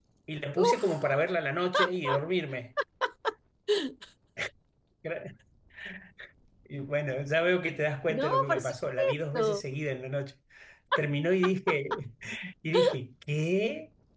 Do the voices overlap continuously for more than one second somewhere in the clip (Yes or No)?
Yes